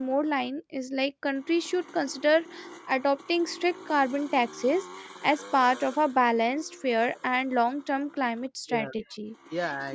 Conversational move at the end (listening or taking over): taking over